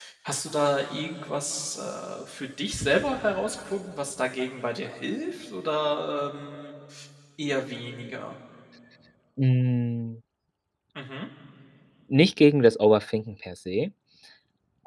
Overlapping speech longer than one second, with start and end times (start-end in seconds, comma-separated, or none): none